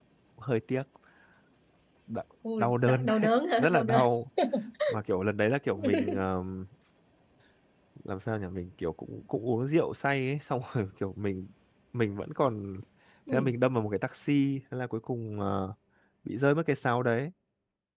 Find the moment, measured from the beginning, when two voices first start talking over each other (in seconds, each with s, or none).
2.6 s